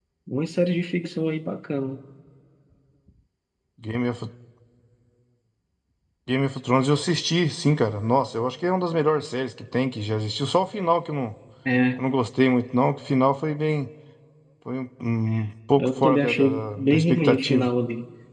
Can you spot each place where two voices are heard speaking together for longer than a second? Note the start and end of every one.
15.8-17.7

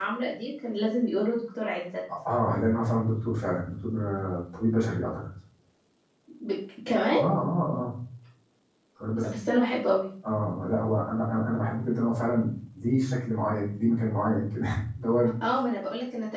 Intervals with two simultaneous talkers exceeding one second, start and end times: none

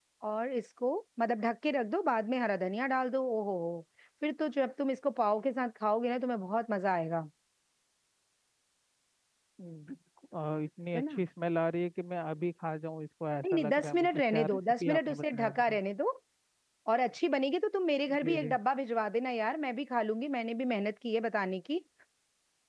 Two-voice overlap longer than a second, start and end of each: 13.5-15.8

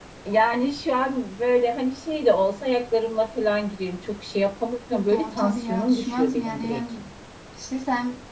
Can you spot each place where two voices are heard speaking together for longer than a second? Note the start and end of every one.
5.1-6.8

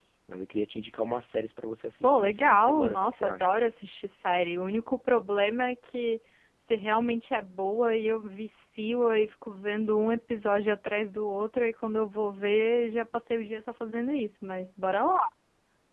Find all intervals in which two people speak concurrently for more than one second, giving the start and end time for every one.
2.0-3.5

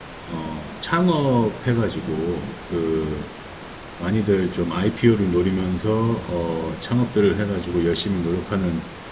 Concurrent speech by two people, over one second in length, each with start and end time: none

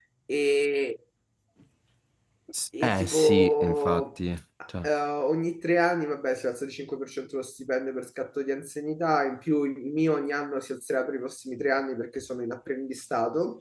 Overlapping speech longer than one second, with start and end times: 2.8-4.0

